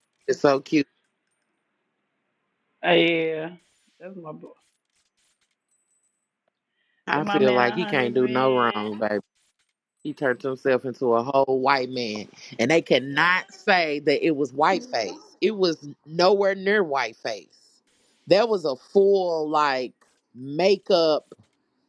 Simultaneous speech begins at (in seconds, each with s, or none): 7.2 s